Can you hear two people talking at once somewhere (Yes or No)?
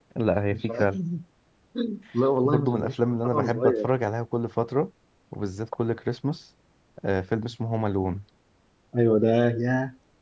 Yes